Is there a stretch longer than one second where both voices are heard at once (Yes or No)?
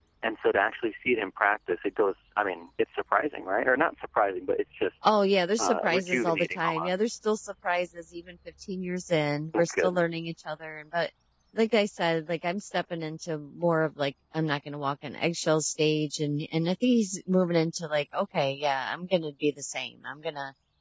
Yes